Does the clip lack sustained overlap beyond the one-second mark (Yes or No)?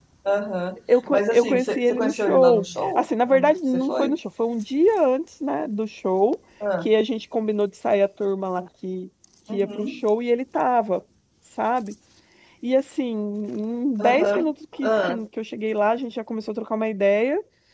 No